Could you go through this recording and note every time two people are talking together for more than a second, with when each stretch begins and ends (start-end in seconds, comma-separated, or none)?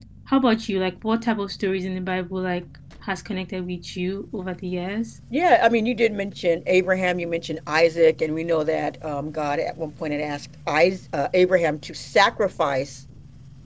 none